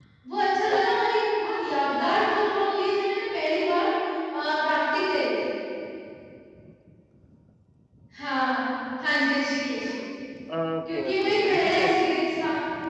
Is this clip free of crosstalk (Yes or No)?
No